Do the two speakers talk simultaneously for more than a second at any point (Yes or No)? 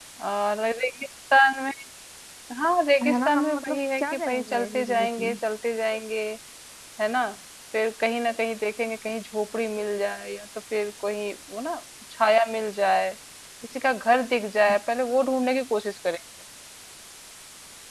Yes